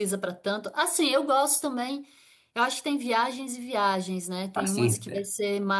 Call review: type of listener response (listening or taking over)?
listening